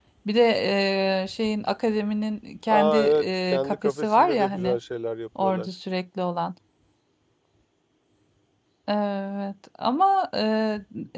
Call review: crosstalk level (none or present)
present